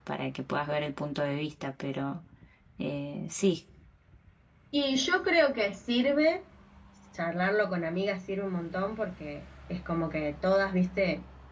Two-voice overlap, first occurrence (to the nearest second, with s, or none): none